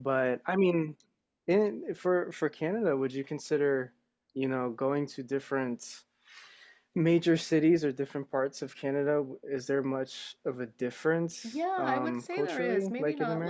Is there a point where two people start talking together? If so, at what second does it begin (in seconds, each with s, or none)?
11.4 s